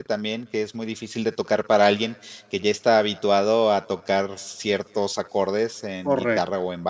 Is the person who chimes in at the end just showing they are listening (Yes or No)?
No